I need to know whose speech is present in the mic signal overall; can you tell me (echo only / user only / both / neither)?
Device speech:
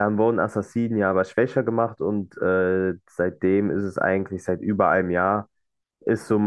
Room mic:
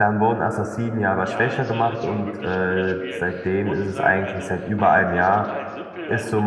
both